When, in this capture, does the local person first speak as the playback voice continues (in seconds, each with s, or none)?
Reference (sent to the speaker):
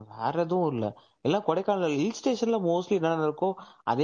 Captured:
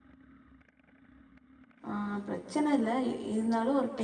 1.9 s